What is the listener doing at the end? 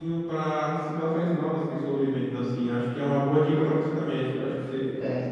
taking over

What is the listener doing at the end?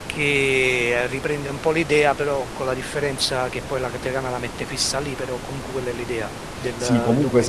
taking over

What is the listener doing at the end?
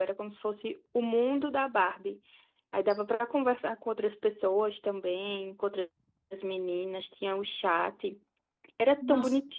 listening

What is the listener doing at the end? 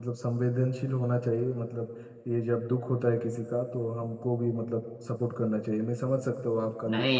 taking over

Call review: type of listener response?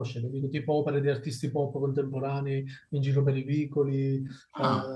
listening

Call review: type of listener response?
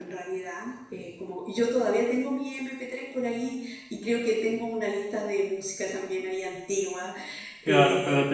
taking over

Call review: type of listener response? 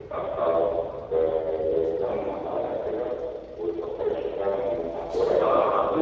taking over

